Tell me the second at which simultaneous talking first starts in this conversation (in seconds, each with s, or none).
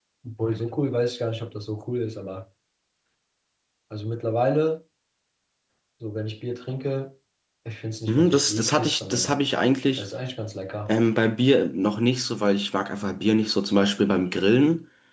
8.1 s